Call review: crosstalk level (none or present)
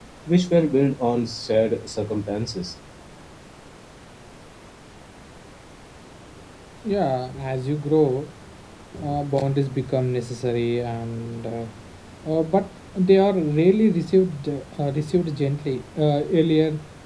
none